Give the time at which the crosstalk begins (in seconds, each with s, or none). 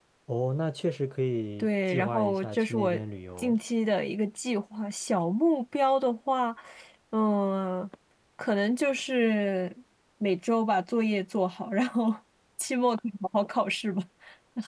1.6 s